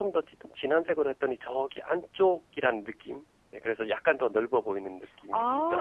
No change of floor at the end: No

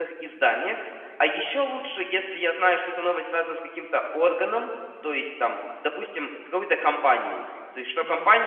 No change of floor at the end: Yes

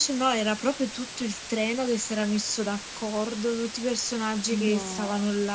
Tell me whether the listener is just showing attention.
Yes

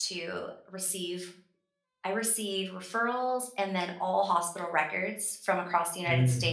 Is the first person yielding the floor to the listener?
No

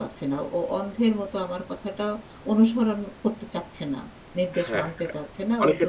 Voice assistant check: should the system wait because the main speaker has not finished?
No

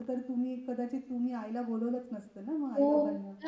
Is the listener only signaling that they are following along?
No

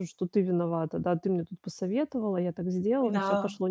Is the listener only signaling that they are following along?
Yes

